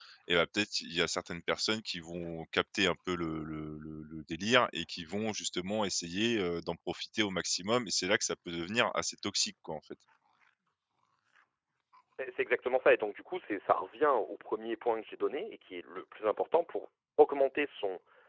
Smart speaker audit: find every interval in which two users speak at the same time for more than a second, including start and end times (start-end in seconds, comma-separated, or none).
none